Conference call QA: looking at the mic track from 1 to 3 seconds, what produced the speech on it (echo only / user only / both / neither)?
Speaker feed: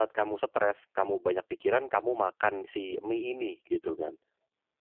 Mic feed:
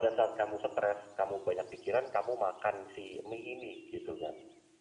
echo only